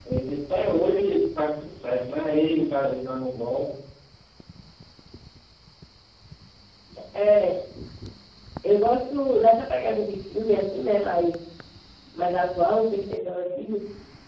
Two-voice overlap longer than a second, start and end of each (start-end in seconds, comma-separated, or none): none